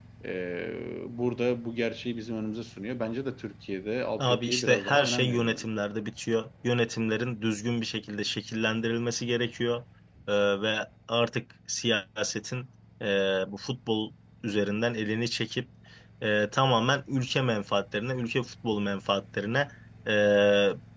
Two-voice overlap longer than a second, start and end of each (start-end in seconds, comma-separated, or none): 4.2-5.7